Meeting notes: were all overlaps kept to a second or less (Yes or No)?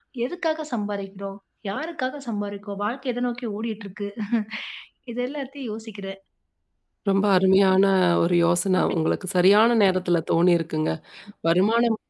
Yes